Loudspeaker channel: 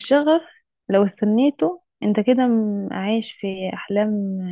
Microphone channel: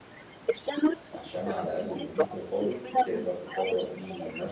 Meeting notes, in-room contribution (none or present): present